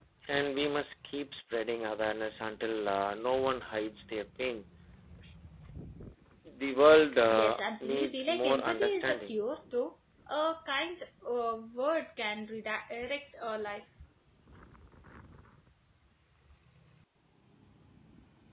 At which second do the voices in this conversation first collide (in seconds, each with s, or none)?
7.3 s